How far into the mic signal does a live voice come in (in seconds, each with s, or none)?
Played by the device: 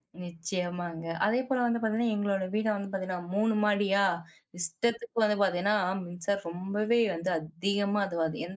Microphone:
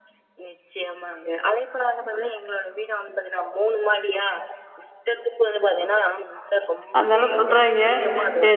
7.0 s